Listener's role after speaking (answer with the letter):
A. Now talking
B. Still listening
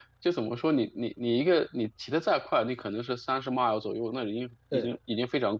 B